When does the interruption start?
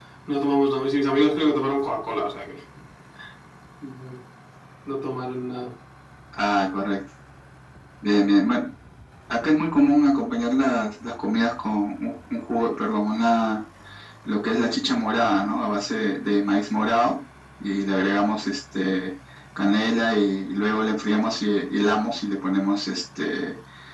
none

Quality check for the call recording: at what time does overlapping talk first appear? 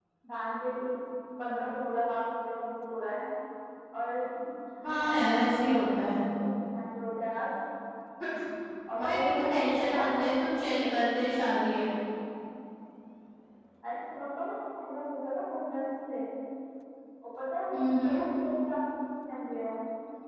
4.9 s

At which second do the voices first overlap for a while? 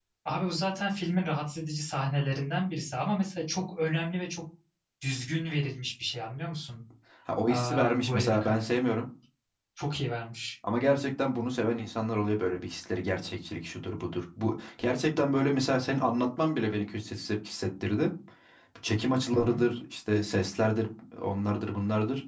7.5 s

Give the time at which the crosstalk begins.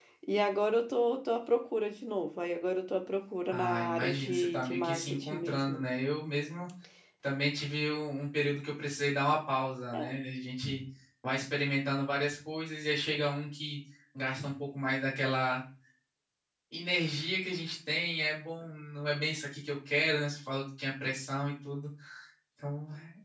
3.5 s

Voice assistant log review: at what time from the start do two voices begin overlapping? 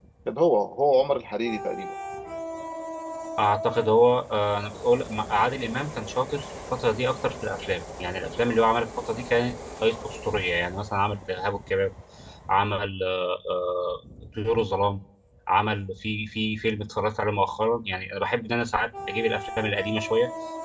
none

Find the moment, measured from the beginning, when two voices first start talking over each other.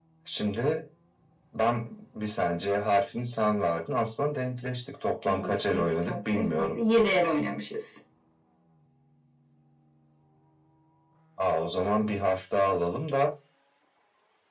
5.3 s

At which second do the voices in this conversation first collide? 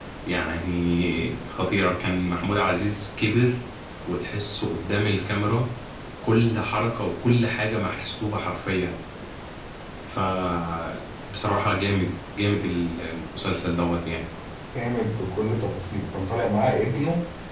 none

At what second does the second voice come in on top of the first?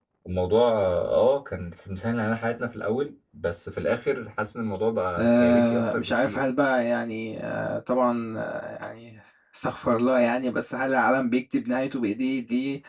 5.2 s

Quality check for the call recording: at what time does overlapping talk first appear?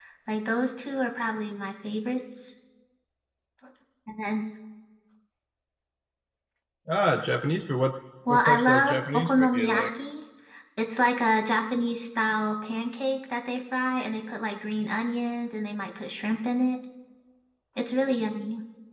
8.3 s

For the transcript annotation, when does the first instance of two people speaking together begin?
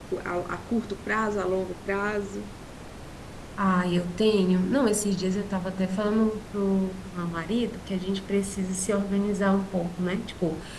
none

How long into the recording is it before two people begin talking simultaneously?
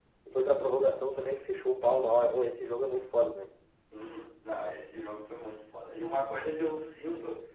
none

